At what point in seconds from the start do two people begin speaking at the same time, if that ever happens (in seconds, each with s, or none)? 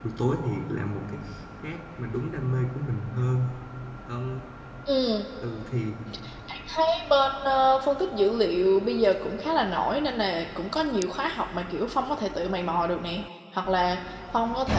none